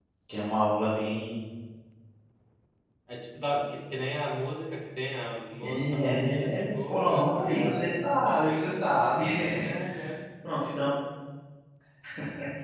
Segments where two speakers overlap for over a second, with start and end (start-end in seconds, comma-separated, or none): 5.6-8.8